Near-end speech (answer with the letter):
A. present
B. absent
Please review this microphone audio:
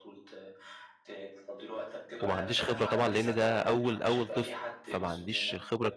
A